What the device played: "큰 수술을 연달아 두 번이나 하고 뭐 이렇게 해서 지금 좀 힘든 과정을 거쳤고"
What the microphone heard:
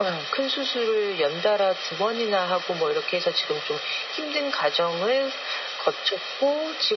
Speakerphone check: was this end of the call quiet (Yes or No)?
Yes